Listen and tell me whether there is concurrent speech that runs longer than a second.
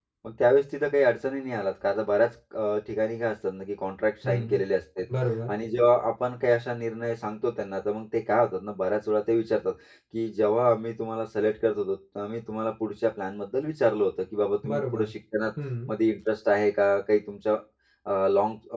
No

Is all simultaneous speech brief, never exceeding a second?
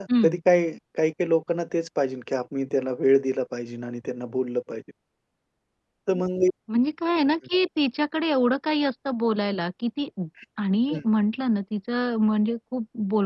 Yes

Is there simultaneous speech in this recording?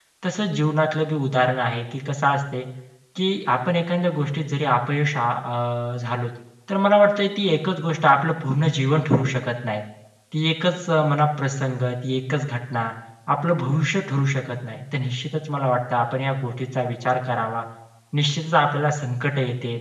No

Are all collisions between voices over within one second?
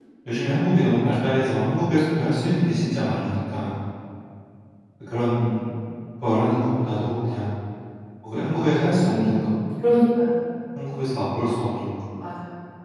Yes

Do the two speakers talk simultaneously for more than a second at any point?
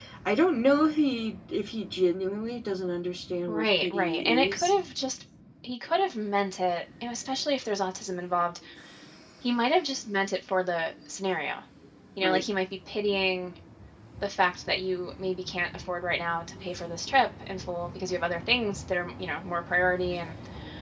Yes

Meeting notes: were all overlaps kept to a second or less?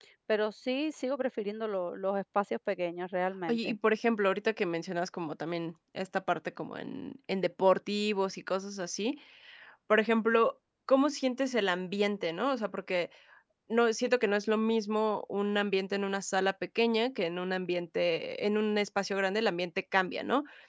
Yes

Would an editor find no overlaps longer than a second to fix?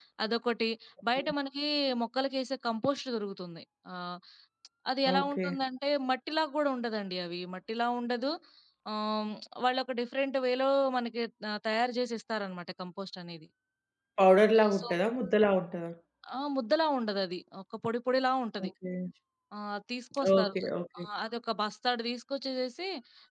Yes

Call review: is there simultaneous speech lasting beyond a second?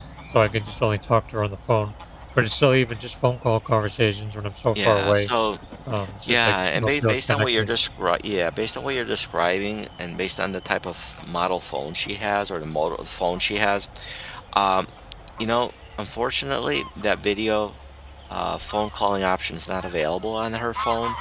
Yes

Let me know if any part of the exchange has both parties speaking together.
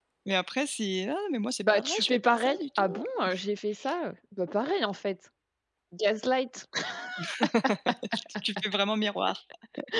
Yes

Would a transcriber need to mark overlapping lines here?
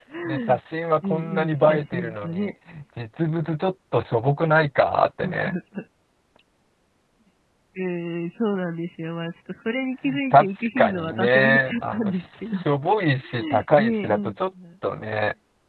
Yes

